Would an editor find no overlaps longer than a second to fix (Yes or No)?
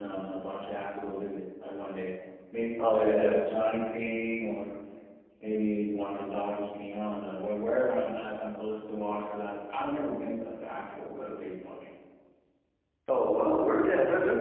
Yes